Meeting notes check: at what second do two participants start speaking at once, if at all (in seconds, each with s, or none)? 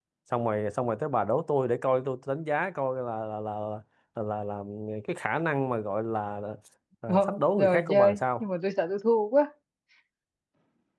7.1 s